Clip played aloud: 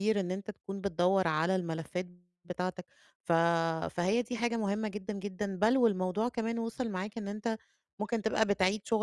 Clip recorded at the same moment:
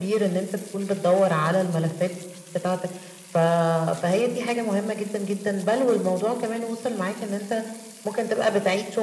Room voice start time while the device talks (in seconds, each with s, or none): none